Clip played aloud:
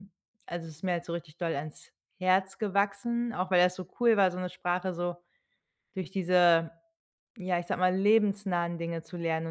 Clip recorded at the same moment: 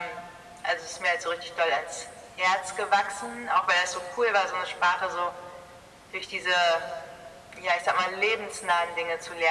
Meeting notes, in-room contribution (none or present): none